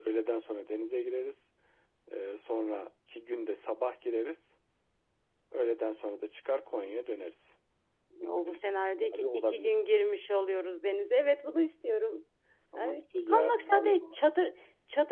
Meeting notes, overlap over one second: present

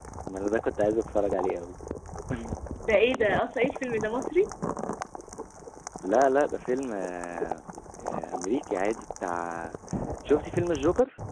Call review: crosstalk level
none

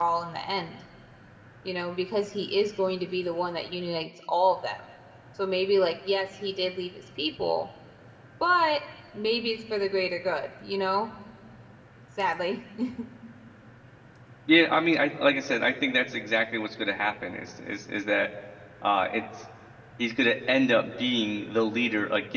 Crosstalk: none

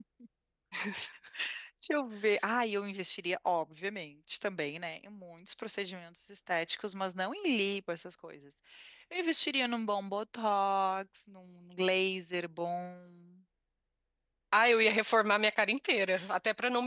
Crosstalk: none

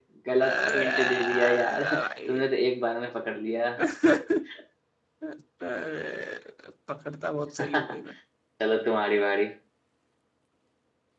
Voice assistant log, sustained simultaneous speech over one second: present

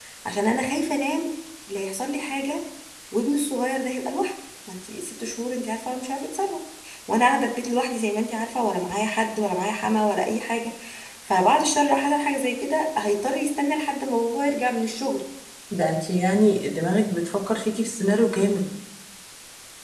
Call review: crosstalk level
none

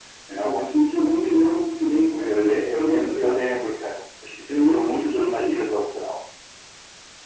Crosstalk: present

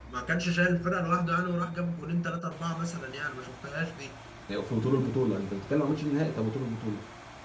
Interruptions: none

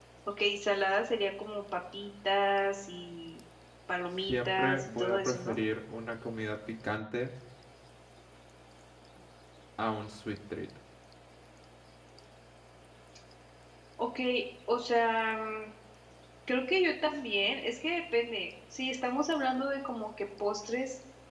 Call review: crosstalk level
present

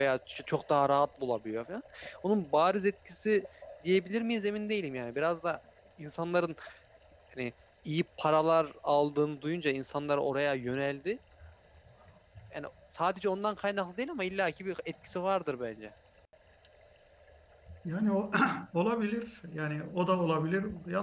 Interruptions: none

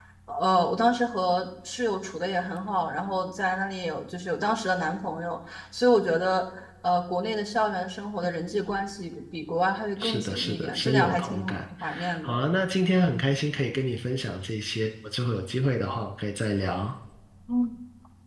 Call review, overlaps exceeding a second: present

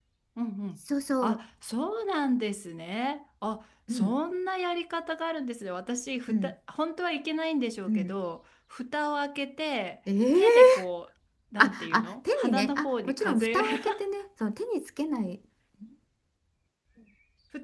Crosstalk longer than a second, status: present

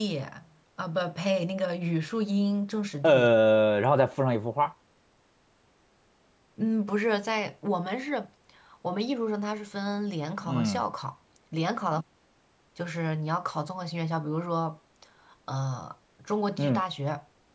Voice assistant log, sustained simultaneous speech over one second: none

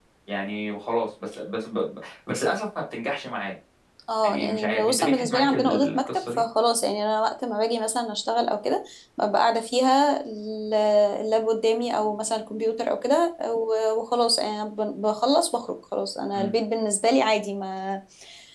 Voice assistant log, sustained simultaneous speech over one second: present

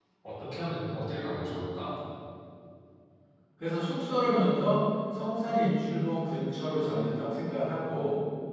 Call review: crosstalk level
none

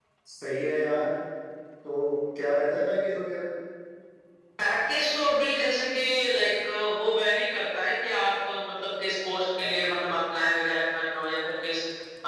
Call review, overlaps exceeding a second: none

